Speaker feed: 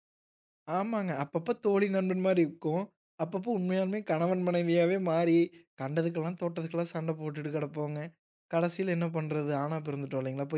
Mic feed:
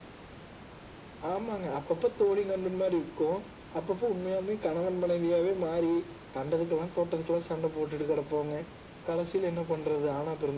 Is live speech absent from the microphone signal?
Yes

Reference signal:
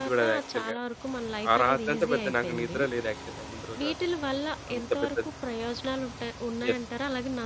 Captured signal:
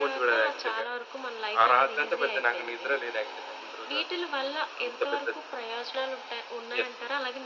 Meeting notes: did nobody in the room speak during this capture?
Yes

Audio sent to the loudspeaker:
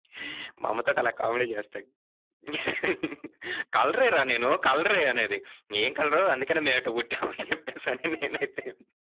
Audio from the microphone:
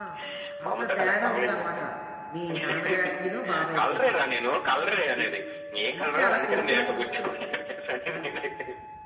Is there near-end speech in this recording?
Yes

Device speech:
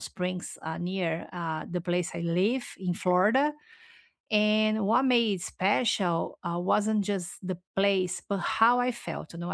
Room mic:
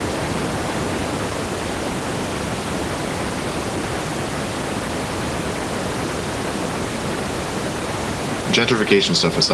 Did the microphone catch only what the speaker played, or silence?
No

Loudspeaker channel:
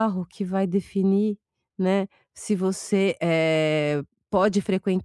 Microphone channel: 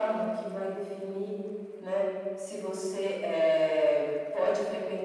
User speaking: No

